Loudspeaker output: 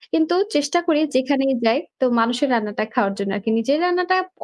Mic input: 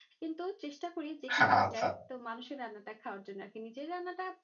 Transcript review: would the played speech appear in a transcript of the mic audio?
Yes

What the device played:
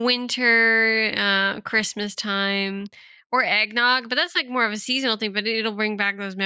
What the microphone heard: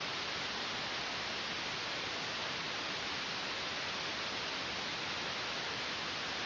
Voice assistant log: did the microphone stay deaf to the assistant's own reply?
Yes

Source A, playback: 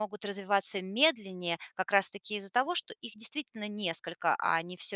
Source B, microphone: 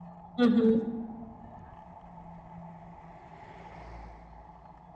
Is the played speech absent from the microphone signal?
Yes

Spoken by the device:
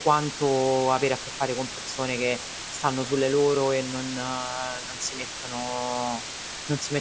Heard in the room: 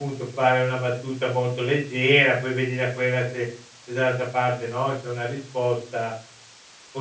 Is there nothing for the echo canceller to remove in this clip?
Yes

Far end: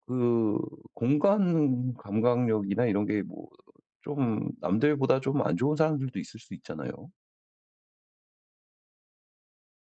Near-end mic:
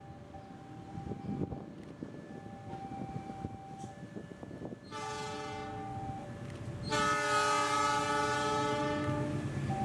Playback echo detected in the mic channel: No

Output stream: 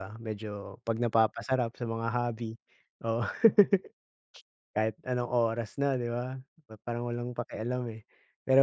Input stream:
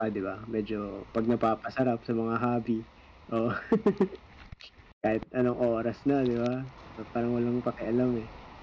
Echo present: Yes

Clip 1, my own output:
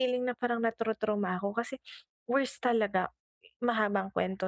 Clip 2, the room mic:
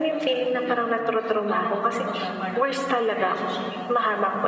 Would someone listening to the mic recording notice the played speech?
Yes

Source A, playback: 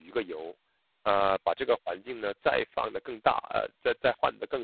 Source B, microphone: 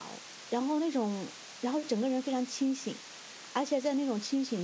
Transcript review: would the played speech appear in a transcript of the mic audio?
No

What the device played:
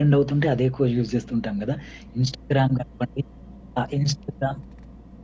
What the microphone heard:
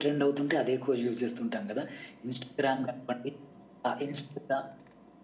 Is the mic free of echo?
No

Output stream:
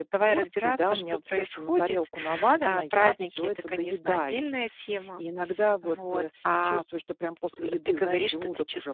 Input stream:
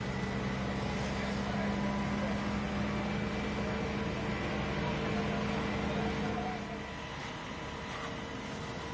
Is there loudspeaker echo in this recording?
No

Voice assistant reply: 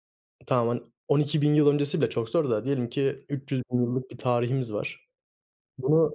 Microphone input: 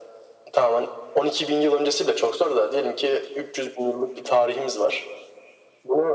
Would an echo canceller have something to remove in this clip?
Yes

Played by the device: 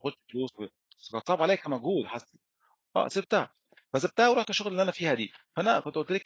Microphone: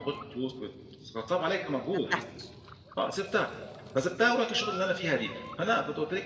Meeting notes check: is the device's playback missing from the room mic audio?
No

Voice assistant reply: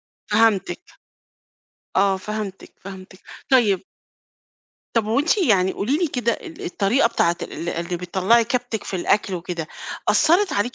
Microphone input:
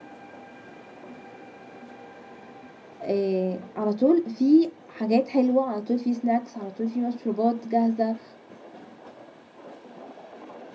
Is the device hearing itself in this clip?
No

